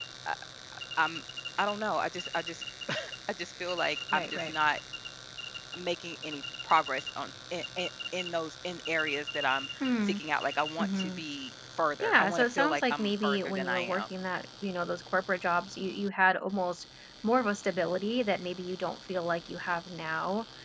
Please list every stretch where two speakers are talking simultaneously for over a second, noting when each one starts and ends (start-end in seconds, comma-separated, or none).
12.0-14.1